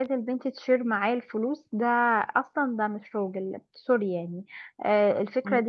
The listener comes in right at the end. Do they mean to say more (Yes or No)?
No